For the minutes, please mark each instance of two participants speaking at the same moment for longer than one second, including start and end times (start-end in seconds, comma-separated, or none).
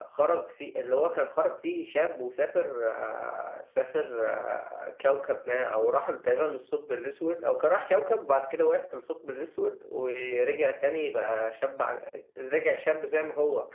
none